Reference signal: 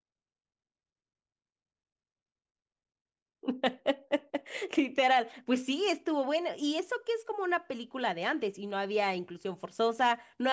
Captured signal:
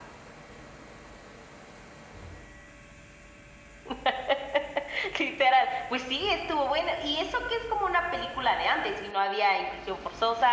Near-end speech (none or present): none